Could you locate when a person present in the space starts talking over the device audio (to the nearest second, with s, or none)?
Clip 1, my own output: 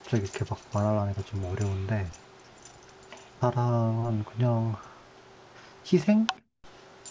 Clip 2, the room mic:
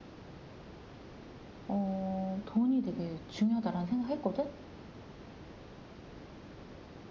2 s